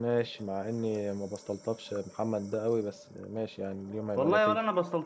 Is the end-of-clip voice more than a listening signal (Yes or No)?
Yes